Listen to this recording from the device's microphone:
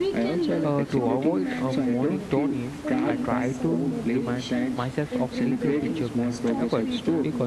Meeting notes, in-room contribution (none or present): present